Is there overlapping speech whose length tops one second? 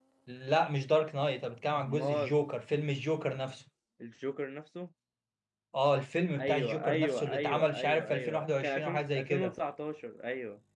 Yes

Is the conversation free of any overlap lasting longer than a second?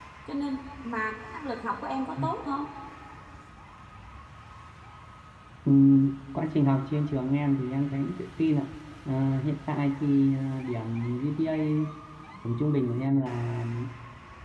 Yes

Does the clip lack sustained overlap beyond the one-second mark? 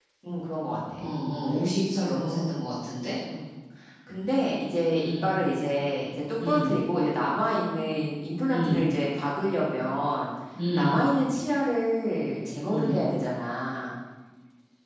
Yes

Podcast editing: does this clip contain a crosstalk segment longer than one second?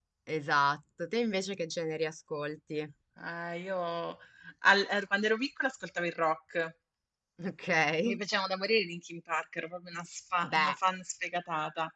No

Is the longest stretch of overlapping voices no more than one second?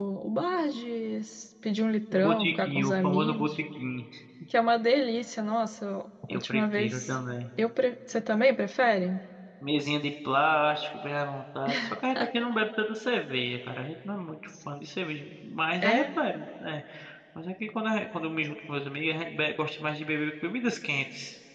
No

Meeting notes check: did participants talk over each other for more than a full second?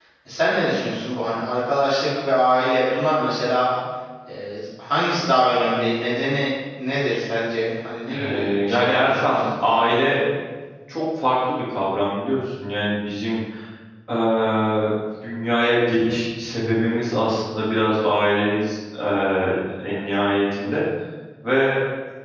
Yes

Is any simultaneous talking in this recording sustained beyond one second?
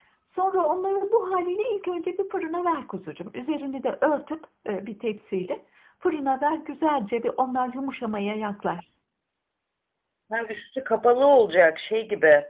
No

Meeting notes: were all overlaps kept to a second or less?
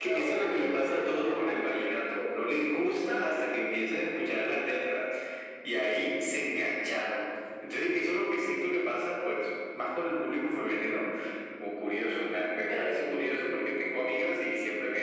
No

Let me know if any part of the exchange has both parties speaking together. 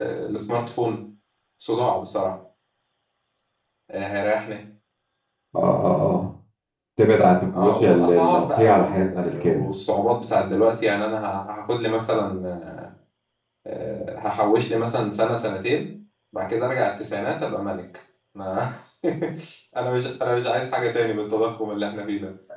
Yes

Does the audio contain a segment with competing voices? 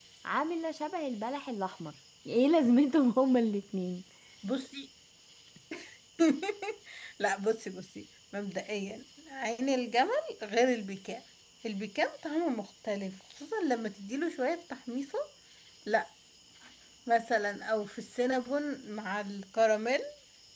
No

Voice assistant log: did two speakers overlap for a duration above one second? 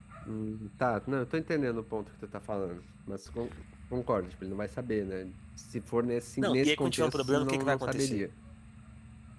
Yes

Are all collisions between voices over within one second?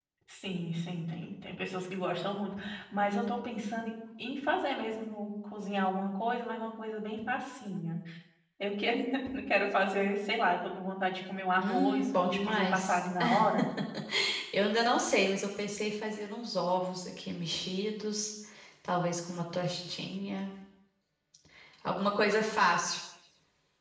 No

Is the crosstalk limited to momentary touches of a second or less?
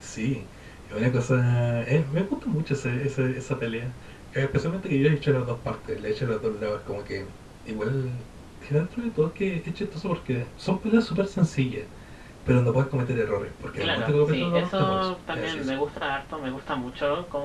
No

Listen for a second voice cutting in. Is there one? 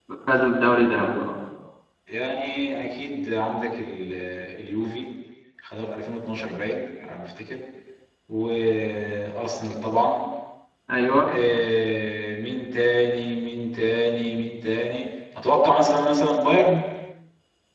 No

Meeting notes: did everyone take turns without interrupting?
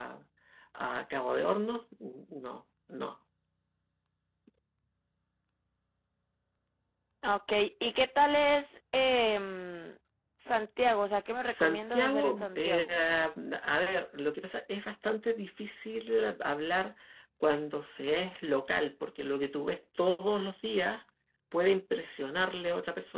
No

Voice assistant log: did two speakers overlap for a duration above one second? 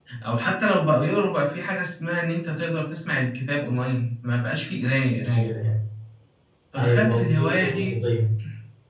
Yes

